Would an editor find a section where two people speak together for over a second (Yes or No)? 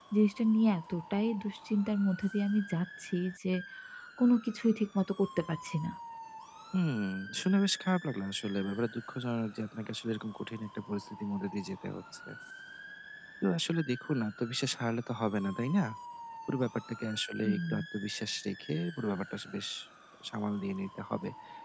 No